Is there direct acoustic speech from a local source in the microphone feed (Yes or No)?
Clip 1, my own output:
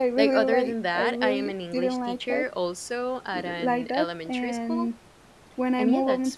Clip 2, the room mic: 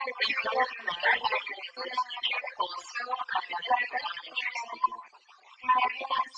No